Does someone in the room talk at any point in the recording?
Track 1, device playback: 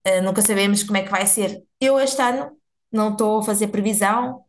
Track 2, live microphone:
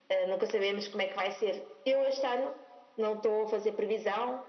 No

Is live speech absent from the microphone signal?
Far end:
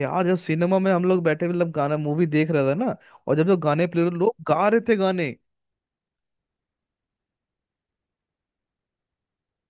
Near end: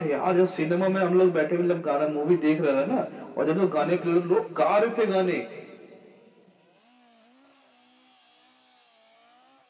Yes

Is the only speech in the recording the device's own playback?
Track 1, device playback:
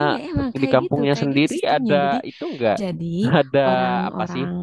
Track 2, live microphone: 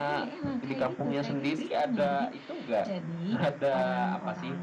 Yes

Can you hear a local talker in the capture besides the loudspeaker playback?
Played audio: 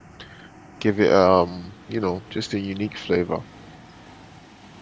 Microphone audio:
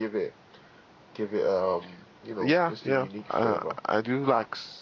Yes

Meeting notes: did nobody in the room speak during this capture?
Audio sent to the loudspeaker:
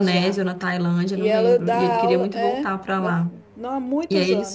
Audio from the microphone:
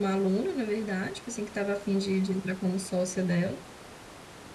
No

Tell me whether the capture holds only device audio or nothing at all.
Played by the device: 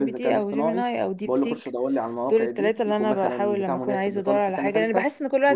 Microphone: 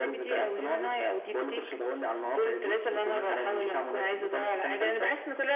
Yes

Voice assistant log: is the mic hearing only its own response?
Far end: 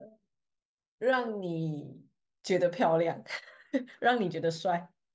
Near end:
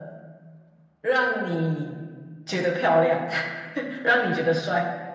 Yes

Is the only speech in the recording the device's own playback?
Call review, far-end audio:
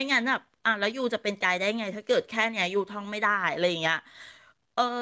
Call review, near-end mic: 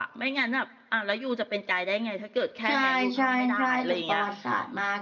No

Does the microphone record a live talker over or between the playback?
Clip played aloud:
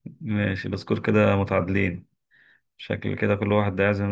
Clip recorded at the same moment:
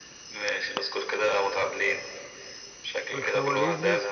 Yes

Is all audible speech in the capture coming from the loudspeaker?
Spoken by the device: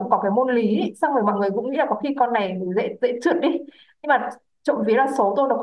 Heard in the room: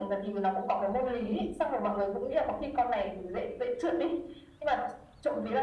Yes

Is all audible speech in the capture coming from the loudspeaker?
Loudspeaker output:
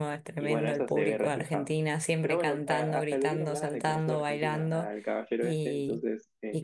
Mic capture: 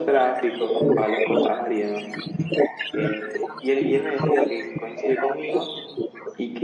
No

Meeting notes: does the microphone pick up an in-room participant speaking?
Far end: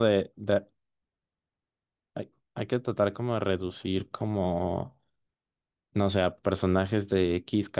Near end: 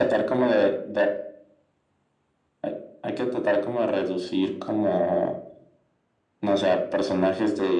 No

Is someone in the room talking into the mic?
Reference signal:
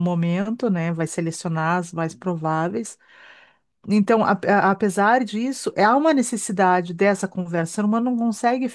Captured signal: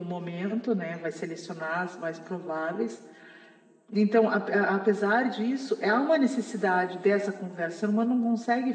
No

